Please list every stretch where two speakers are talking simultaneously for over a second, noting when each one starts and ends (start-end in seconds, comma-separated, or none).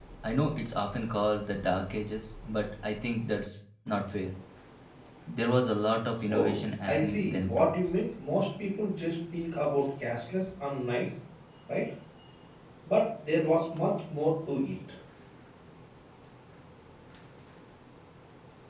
6.3-7.7